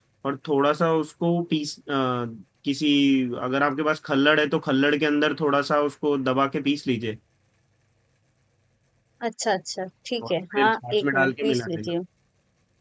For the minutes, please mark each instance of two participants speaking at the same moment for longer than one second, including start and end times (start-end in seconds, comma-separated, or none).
10.2-11.9